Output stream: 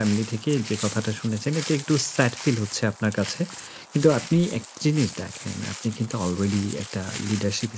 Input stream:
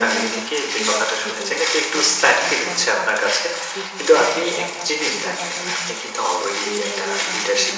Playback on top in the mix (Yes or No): Yes